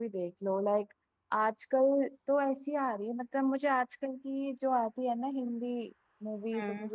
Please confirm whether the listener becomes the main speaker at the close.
No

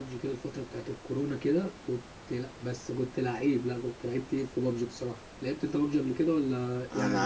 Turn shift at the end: Yes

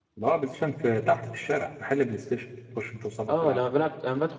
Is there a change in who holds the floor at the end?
Yes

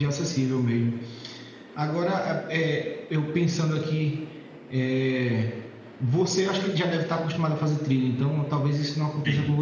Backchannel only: Yes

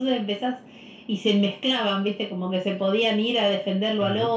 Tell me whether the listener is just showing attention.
Yes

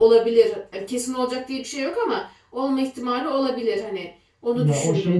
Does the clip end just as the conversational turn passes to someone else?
Yes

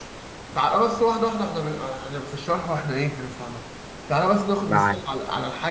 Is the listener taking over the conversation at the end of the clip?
No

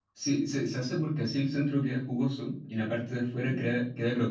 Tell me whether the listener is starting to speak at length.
No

